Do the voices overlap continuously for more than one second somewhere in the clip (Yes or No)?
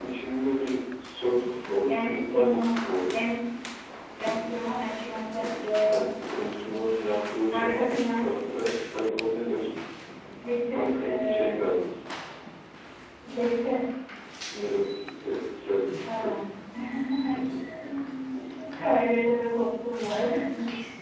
Yes